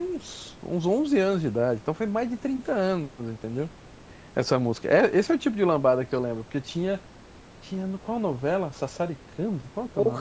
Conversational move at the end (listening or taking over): listening